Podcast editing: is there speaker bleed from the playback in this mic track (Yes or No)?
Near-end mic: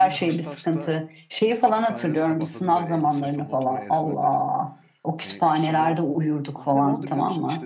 Yes